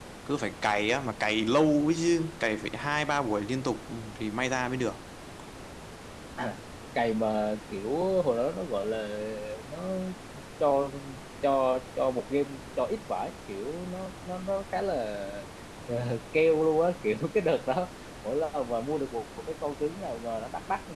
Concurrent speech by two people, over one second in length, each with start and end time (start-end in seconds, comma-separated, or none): none